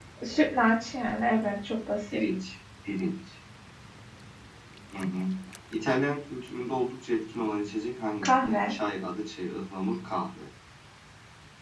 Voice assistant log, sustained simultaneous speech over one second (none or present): none